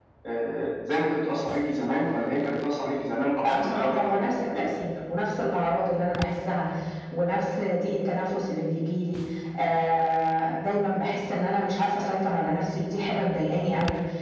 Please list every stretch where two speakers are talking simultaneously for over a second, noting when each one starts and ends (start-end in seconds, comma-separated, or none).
3.4-4.8